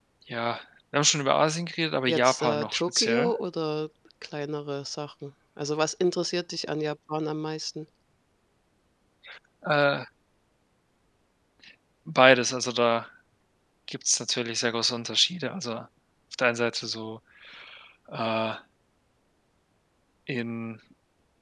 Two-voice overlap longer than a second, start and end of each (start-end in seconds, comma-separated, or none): 2.1-3.3